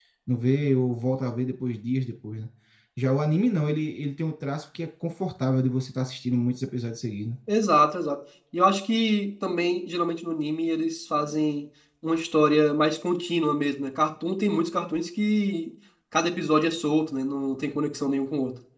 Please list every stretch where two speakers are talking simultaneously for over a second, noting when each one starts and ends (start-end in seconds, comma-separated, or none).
none